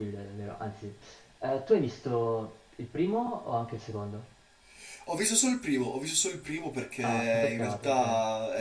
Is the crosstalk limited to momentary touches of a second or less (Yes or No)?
No